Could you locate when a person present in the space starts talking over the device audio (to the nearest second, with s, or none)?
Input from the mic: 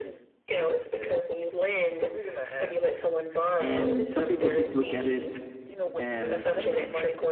4 s